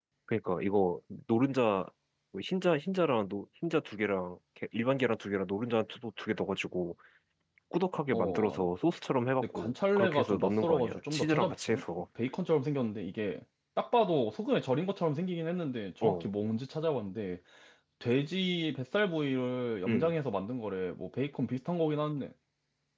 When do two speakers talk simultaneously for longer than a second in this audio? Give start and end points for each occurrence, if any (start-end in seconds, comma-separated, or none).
9.4-11.8